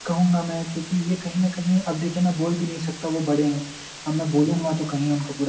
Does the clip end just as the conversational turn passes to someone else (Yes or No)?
No